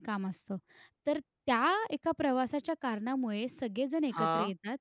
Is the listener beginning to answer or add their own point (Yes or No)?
No